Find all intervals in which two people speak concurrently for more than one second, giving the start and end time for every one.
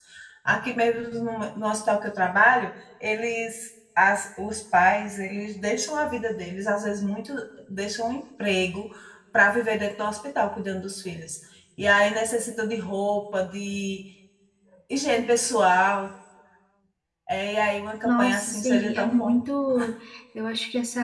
18.0-19.4

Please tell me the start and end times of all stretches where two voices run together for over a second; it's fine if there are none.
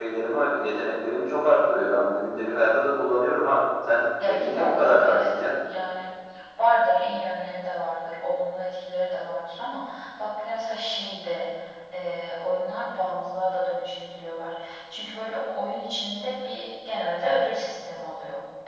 4.2-5.6

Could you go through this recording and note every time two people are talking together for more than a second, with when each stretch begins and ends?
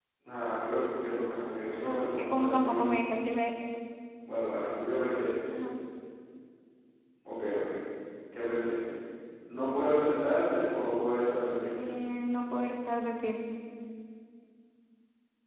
1.8-3.0

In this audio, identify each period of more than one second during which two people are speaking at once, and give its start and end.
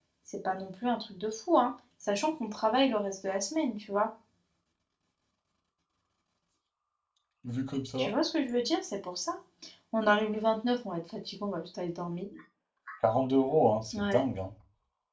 none

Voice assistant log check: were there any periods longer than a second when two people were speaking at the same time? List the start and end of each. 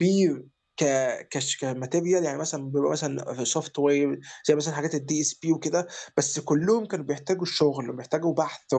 none

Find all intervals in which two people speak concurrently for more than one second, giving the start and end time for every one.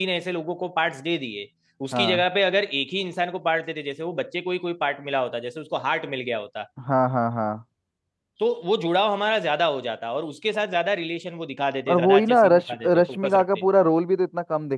11.9-13.6

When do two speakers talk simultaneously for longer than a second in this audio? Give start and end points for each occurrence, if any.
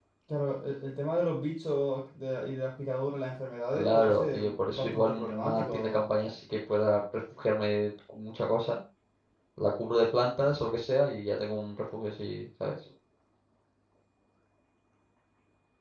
3.7-6.1

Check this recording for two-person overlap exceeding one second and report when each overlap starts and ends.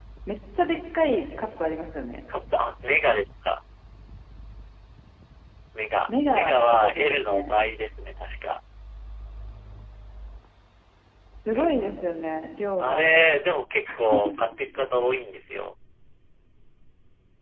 6.1-7.5

